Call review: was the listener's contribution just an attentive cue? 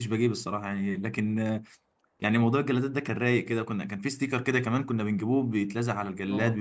Yes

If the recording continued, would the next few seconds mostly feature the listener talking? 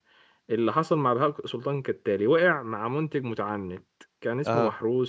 No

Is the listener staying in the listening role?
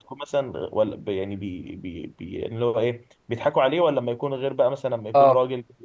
Yes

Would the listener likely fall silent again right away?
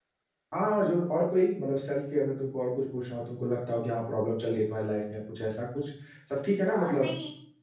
No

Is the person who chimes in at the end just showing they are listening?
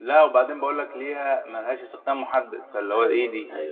No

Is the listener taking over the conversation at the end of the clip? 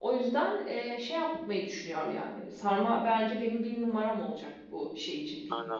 Yes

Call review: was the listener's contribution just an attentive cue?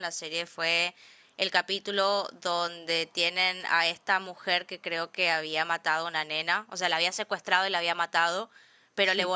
Yes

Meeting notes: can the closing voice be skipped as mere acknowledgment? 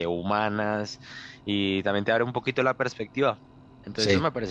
No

